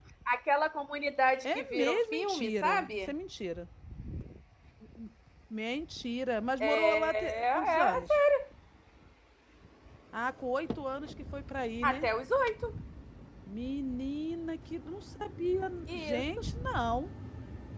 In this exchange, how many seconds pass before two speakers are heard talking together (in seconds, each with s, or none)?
1.4 s